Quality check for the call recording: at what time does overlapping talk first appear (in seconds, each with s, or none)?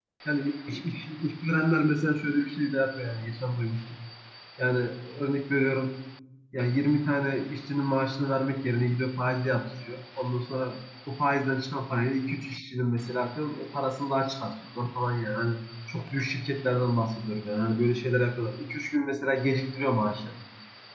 none